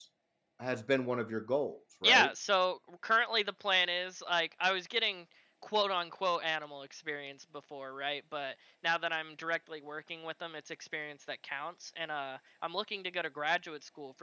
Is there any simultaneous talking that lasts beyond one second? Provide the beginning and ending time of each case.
none

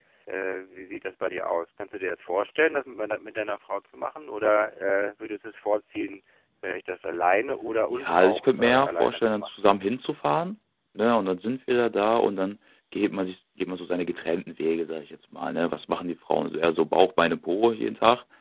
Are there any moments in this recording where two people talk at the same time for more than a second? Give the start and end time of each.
7.9-9.5

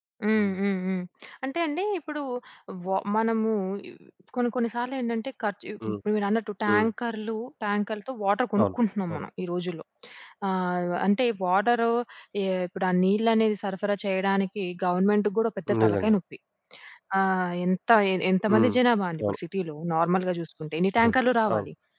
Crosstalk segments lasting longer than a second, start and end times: none

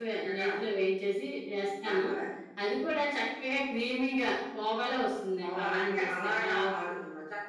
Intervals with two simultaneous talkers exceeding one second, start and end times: 5.4-6.7

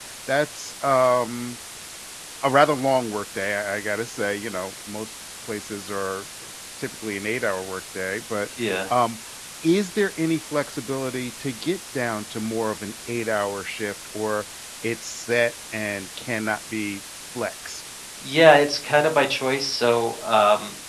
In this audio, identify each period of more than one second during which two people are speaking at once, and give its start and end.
none

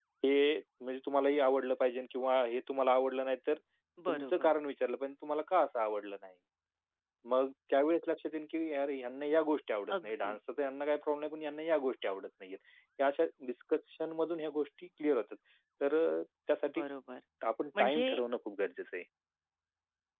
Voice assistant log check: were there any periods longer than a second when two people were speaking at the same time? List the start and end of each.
none

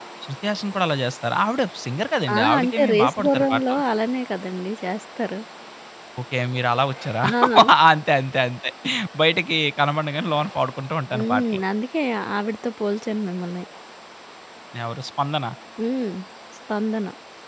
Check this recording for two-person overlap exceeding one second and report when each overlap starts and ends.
2.4-3.8

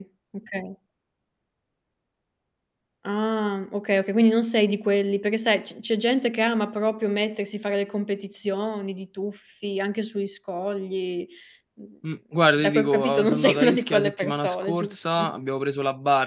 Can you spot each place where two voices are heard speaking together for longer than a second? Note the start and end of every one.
12.6-15.3

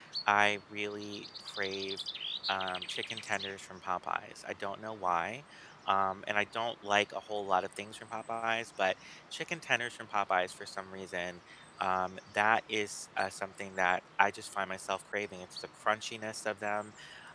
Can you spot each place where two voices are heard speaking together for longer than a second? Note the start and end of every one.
none

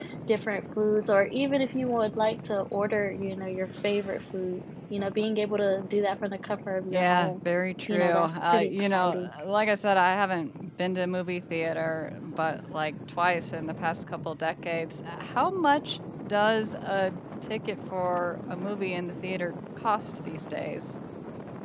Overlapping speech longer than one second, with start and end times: 7.9-9.3

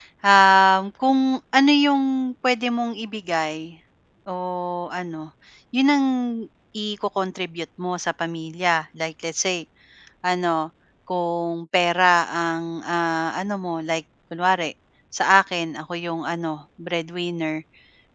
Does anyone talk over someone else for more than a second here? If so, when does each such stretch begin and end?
none

